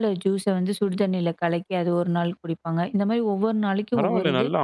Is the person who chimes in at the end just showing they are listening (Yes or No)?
No